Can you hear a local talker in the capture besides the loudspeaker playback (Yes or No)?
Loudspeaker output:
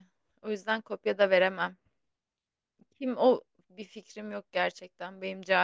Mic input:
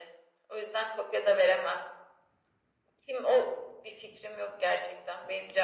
No